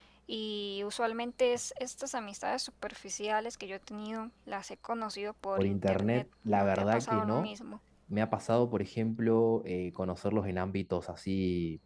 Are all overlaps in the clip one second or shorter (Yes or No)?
No